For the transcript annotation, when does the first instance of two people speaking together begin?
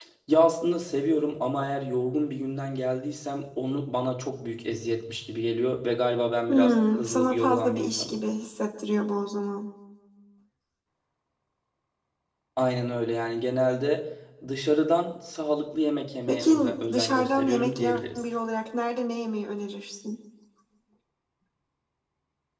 6 s

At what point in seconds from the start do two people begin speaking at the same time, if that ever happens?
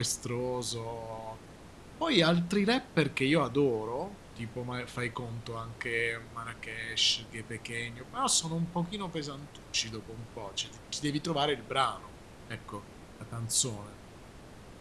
none

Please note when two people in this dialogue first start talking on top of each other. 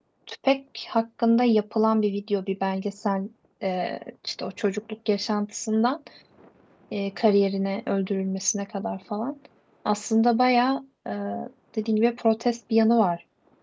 none

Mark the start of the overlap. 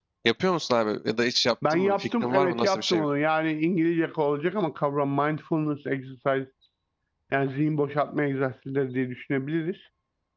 2 s

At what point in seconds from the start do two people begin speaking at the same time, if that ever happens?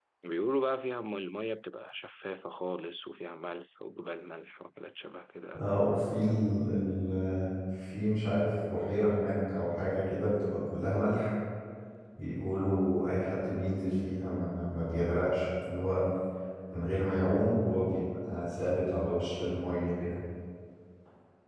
none

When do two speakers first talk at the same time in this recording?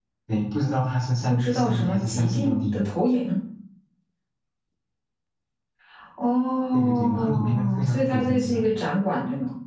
1 s

